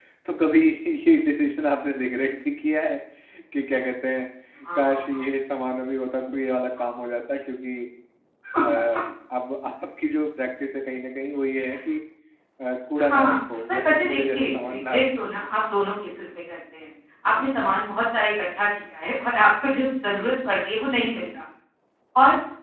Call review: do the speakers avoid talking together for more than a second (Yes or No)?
No